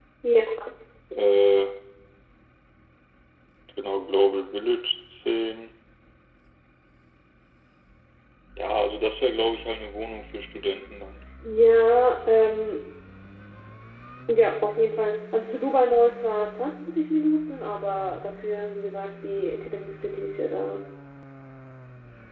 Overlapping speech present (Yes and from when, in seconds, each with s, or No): No